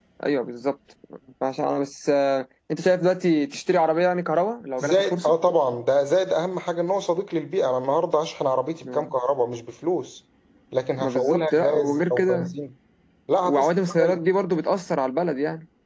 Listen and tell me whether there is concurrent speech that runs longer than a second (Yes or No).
Yes